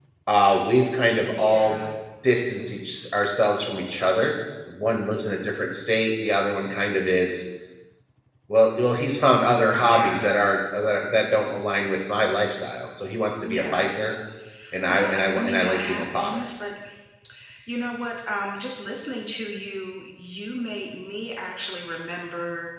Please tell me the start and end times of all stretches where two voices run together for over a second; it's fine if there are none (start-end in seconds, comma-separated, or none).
14.9-16.4